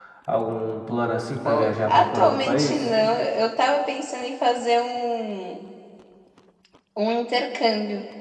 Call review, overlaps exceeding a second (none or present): present